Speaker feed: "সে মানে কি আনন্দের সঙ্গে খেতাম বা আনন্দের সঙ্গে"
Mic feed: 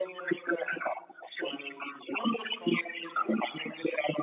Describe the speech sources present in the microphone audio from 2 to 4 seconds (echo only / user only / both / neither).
echo only